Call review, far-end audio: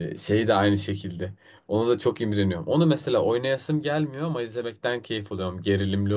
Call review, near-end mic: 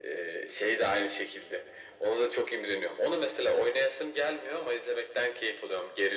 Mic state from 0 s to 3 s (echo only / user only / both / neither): echo only